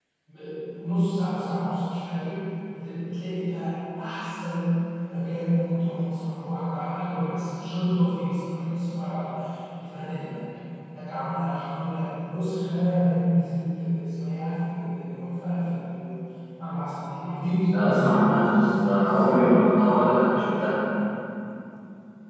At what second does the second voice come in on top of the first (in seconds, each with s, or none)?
17.7 s